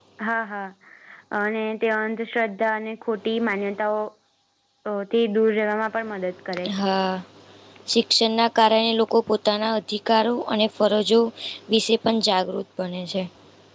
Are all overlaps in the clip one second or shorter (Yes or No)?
Yes